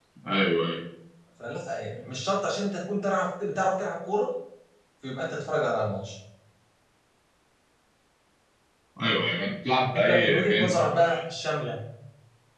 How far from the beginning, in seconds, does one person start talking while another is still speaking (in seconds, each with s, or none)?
9.9 s